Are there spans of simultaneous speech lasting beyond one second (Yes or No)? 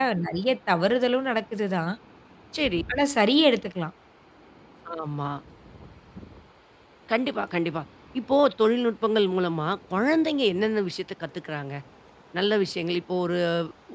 No